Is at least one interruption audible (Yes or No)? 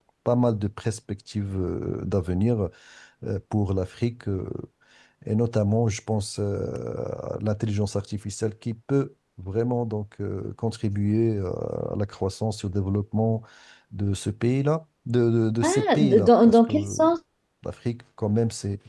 Yes